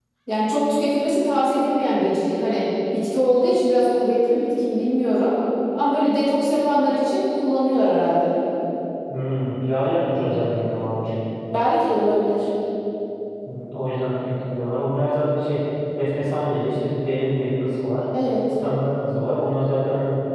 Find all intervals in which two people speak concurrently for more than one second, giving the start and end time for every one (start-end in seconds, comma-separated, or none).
none